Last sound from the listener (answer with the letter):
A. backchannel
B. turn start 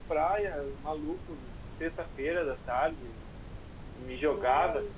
A